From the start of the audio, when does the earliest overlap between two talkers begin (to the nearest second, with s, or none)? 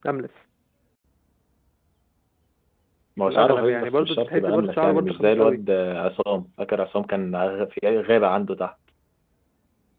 3 s